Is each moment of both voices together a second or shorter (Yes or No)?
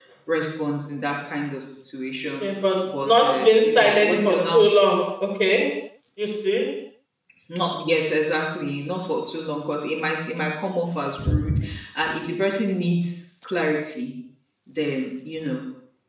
No